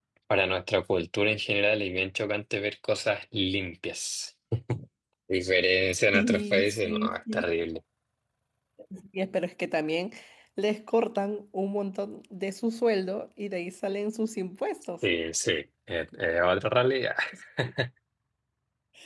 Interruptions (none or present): present